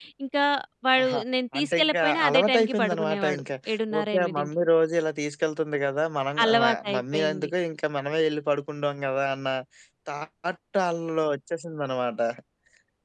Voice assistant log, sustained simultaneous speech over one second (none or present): present